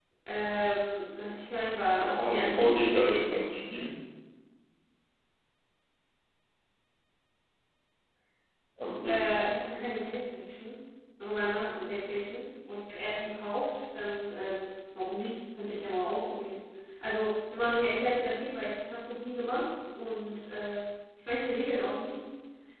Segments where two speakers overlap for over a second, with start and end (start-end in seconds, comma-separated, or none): 1.9-3.5